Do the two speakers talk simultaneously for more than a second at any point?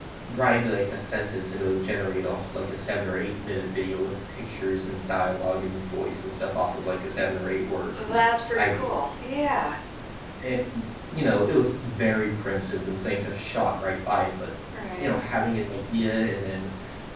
No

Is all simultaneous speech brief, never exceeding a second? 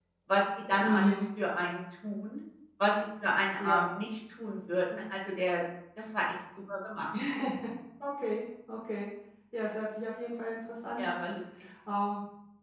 Yes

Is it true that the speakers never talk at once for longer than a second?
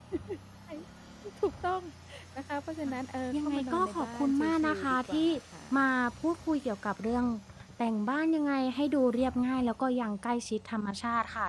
No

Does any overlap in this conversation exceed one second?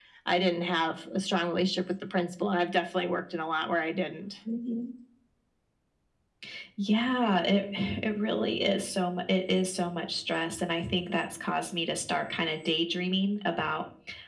No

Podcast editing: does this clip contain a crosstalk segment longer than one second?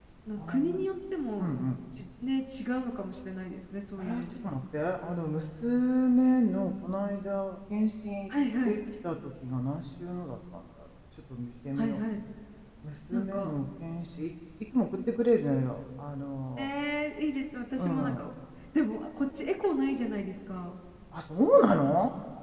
No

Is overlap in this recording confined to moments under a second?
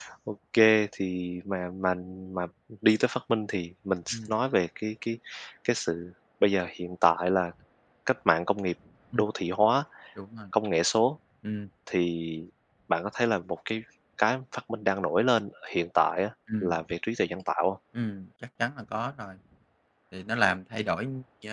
Yes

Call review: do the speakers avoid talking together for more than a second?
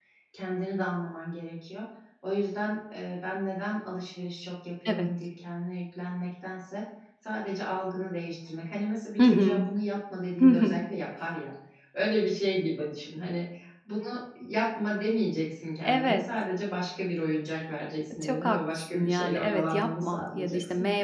No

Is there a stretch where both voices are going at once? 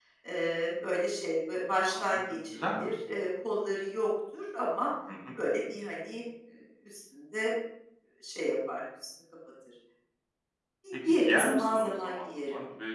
Yes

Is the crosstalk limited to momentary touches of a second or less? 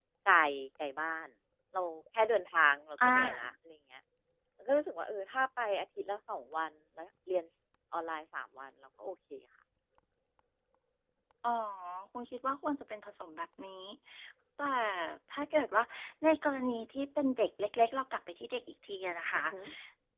Yes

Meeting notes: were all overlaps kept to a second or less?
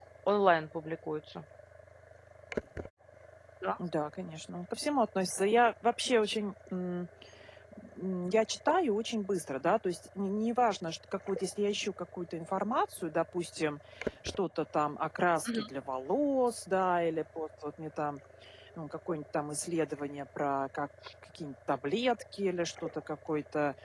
Yes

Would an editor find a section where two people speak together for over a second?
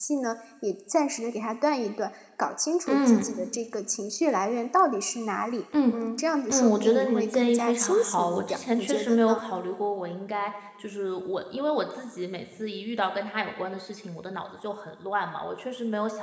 Yes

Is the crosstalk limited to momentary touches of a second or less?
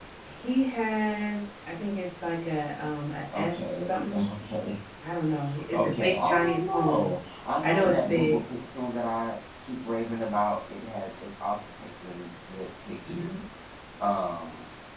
No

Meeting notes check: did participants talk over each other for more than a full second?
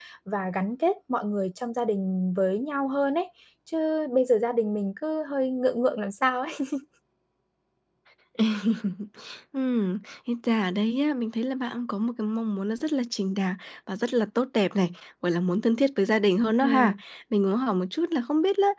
No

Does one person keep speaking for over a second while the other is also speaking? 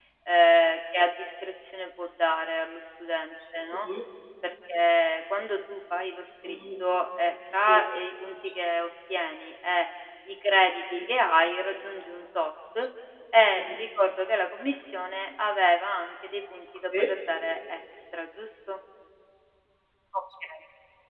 No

